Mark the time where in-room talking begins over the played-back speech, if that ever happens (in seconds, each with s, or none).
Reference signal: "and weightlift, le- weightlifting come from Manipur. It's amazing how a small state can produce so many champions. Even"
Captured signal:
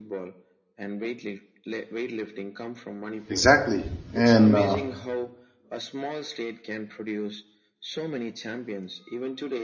3.3 s